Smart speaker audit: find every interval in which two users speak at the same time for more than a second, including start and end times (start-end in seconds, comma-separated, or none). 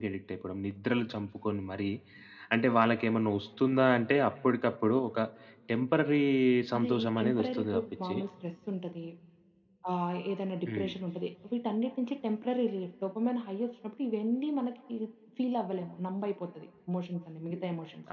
6.8-8.1